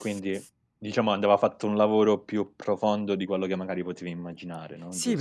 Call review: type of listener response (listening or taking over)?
taking over